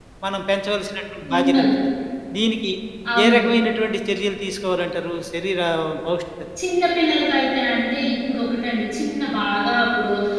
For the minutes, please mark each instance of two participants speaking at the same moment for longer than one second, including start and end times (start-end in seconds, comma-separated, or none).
none